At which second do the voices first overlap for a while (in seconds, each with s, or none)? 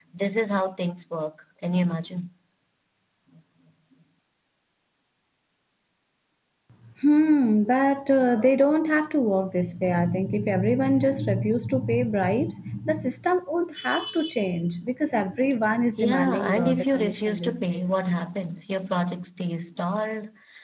16.0 s